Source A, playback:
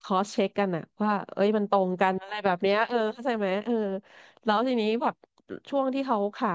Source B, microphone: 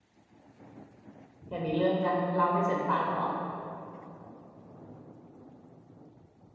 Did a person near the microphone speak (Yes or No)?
Yes